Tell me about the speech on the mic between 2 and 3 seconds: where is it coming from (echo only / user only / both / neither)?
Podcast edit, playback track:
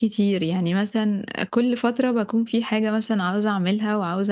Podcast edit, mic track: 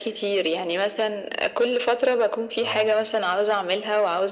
both